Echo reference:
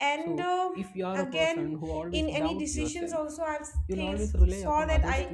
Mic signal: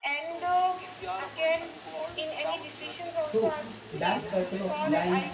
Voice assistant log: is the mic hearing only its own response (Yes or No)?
No